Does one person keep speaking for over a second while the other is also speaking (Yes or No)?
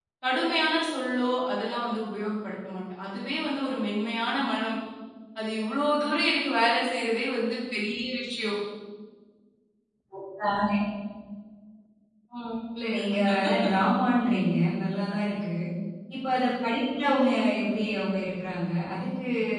No